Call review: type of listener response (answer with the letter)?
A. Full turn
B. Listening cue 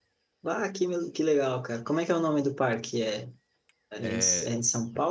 B